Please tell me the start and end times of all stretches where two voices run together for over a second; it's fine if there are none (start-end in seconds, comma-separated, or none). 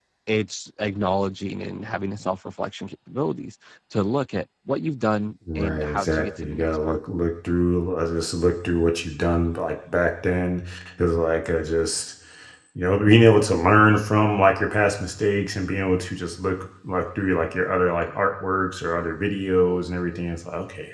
5.6-7.0